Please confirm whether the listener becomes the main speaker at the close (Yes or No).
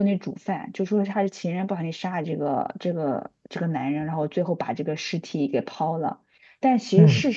No